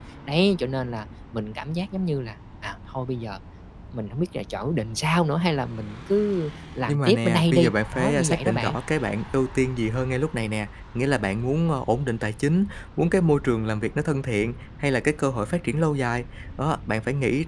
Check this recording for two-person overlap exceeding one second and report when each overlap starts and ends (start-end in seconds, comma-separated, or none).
6.9-8.8